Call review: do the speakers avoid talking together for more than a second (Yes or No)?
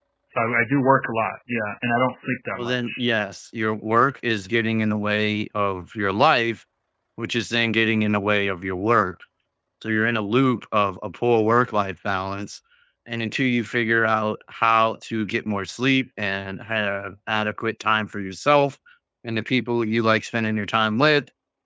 Yes